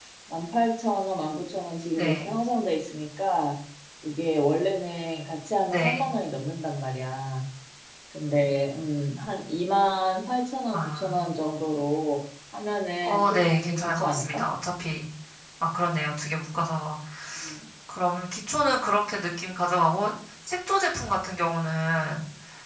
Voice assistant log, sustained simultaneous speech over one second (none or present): present